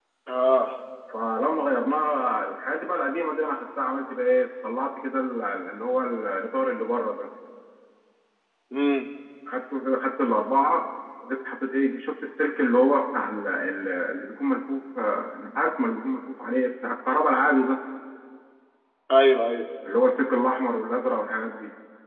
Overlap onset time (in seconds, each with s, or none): none